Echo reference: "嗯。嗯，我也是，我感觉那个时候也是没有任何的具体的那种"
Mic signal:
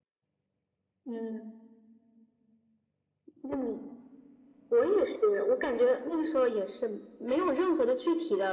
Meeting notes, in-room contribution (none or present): none